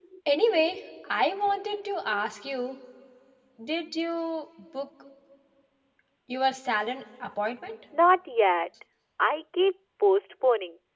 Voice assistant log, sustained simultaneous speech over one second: none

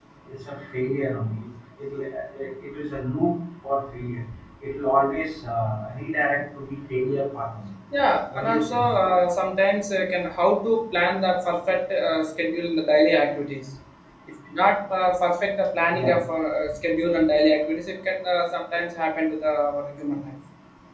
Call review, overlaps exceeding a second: none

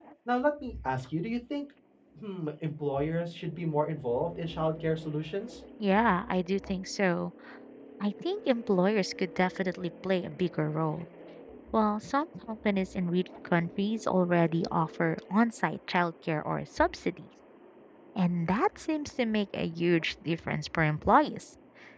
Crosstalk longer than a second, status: none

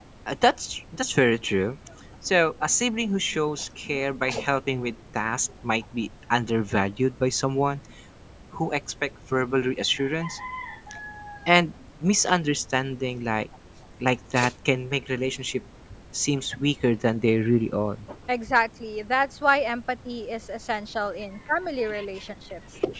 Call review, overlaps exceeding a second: none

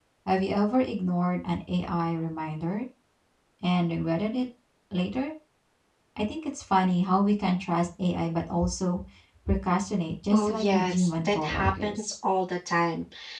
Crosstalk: present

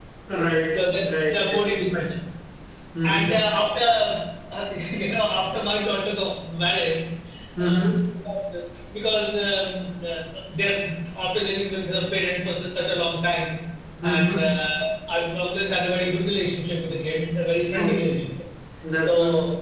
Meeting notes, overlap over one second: present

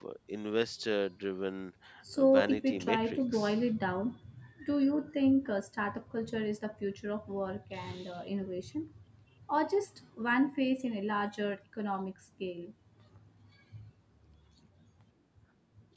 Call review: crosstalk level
present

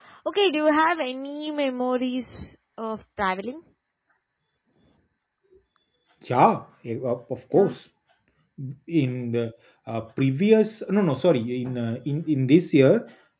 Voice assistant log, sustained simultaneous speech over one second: none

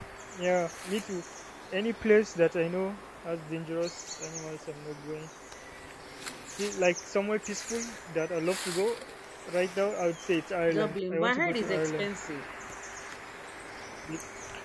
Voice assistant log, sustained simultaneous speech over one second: present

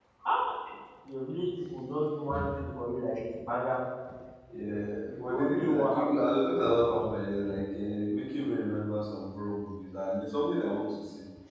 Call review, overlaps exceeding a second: present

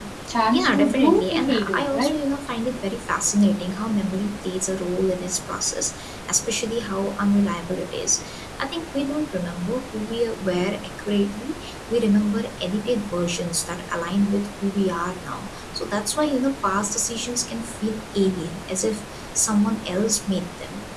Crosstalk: present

